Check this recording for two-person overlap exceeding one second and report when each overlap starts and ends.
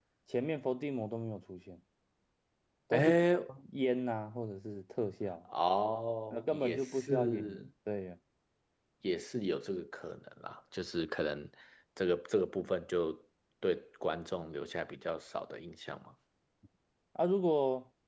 6.3-7.7

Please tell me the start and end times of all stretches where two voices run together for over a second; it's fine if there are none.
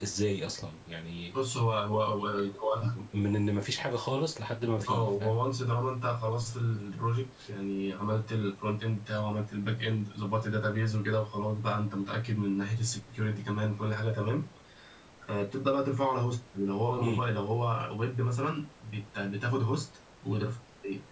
none

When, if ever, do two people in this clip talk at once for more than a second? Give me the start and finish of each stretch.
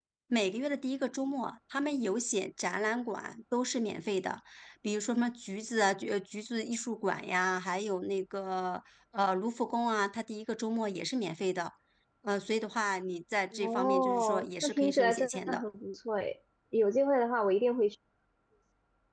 13.5-15.6

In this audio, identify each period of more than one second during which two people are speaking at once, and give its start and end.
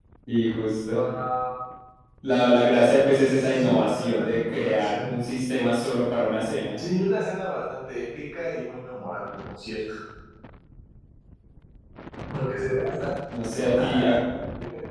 3.5-5.2

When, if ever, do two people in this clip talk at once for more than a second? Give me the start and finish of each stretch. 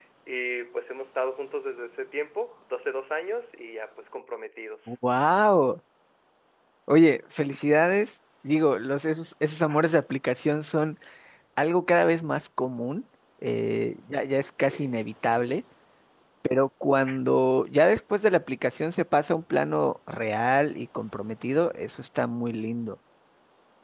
none

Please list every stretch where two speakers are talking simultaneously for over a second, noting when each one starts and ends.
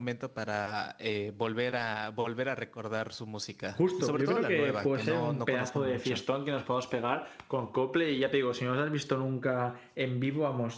3.8-6.2

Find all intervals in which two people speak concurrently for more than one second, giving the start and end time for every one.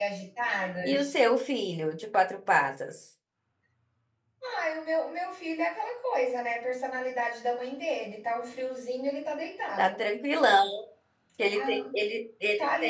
none

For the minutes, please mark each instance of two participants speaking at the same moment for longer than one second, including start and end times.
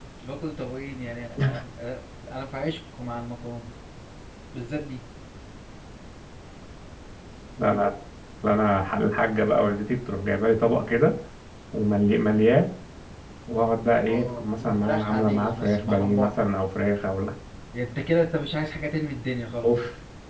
14.1-16.3

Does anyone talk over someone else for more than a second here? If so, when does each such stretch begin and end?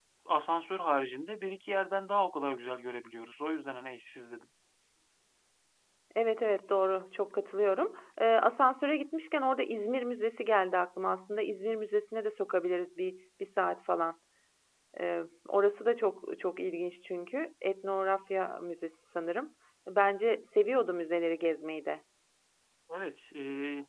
none

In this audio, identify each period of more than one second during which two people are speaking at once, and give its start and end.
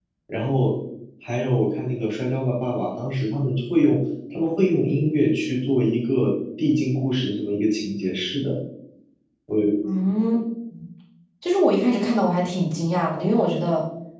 none

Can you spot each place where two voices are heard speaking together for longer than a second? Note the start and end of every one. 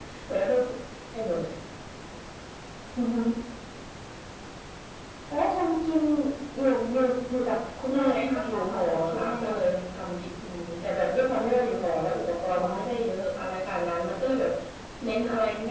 7.9-9.3

